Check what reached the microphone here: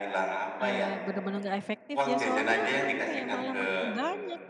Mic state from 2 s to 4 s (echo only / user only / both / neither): both